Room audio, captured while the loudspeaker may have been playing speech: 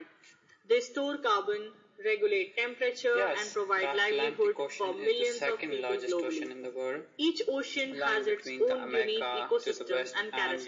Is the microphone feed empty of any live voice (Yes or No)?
Yes